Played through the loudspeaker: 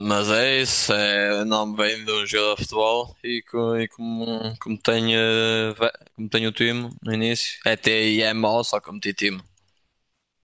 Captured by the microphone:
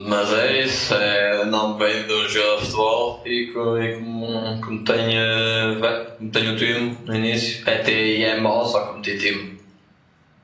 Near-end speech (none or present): none